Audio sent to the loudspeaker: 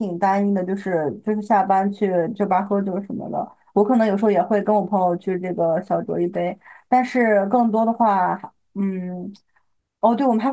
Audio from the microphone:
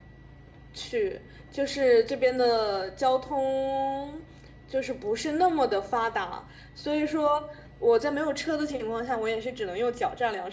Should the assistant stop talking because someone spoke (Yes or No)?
Yes